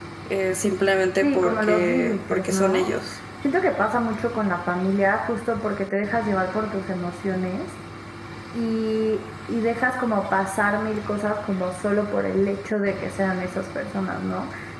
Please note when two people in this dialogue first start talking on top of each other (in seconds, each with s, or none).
1.2 s